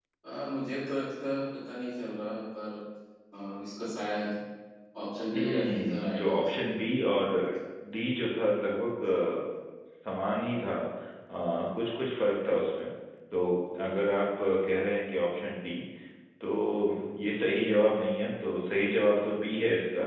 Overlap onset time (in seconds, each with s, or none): 5.3 s